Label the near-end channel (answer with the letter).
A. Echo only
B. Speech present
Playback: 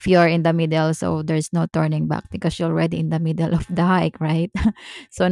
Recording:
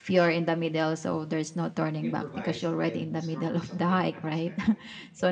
B